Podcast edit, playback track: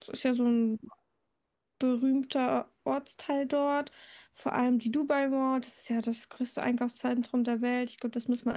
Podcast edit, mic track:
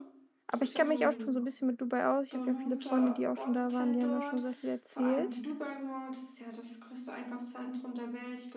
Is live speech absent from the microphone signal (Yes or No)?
No